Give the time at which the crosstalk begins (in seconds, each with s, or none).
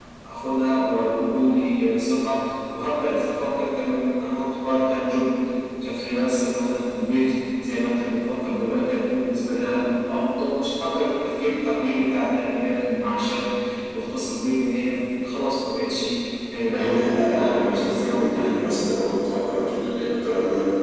16.7 s